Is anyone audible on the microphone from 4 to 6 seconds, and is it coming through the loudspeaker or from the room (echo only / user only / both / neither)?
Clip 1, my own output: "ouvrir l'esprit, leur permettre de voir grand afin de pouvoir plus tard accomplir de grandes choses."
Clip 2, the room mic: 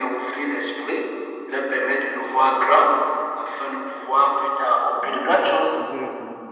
both